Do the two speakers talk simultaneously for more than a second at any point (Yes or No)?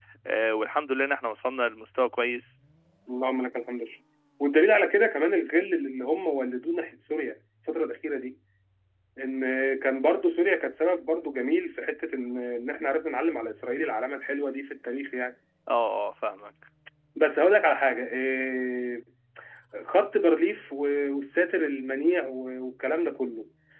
No